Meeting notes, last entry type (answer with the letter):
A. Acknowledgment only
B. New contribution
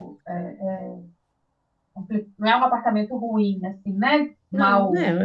B